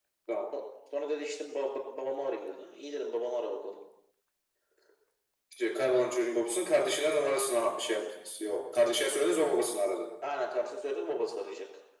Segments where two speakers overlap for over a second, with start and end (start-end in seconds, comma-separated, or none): none